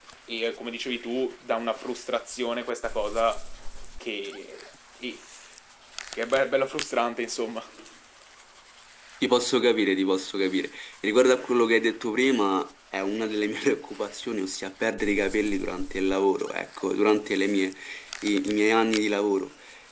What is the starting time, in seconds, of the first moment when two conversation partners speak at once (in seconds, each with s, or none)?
none